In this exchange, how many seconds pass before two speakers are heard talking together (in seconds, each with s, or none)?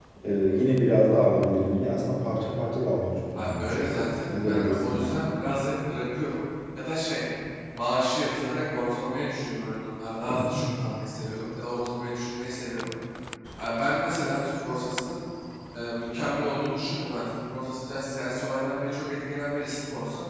3.4 s